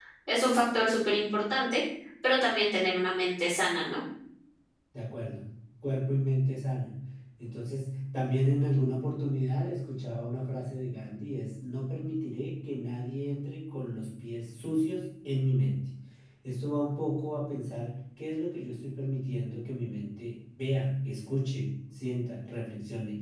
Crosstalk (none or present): none